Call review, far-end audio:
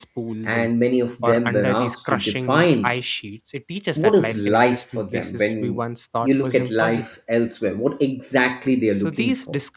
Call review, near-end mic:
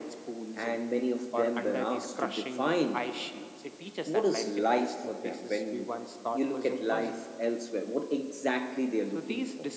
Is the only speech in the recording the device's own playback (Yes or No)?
Yes